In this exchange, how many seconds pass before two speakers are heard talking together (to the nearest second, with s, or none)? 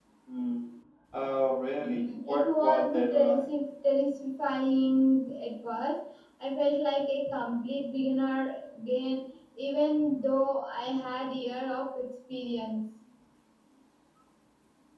2 s